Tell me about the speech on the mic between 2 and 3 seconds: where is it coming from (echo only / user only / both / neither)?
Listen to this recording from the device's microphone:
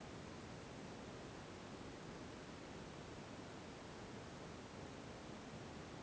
neither